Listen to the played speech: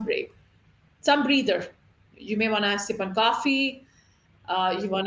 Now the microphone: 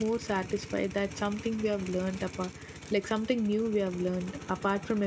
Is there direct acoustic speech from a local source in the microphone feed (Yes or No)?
Yes